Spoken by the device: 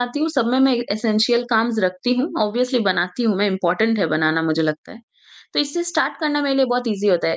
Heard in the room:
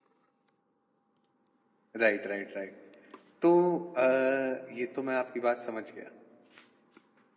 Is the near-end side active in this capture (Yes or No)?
Yes